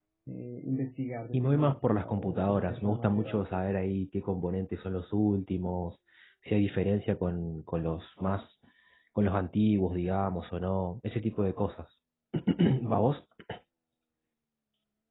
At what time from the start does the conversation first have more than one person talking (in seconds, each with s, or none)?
1.3 s